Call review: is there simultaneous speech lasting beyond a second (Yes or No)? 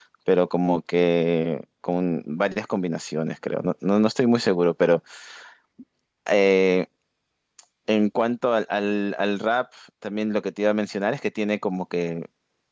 No